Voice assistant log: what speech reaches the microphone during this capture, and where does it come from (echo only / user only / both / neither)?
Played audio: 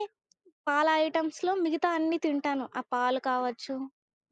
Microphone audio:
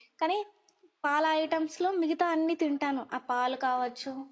echo only